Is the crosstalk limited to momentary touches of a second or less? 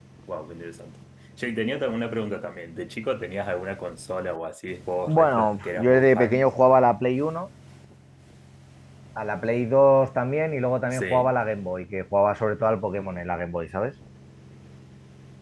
No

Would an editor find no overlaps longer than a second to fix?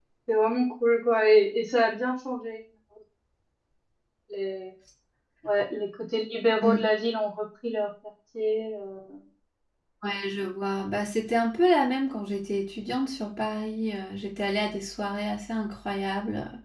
Yes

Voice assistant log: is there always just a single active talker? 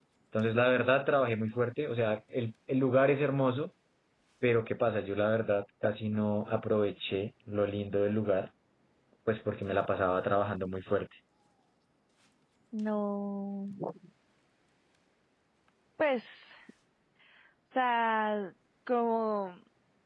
Yes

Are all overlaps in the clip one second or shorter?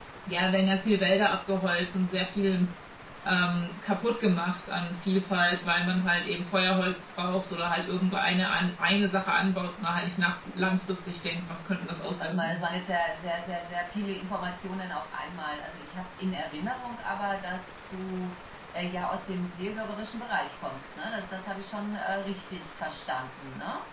Yes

